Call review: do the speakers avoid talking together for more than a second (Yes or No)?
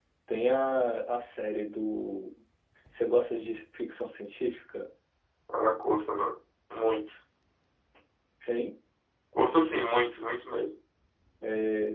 Yes